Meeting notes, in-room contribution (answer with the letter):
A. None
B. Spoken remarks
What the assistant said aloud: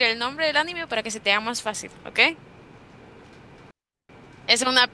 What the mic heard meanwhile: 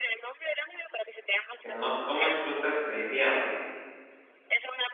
B